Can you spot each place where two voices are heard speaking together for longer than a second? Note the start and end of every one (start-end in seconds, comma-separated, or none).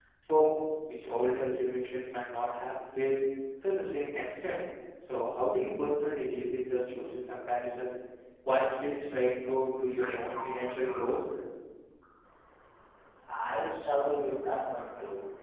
9.8-11.1